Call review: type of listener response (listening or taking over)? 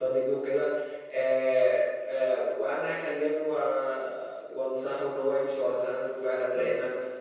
listening